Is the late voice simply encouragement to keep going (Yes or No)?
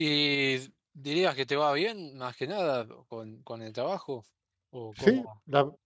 No